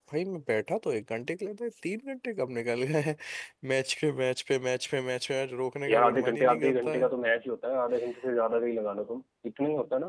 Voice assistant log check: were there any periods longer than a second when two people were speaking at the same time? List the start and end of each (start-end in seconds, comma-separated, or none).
5.9-7.1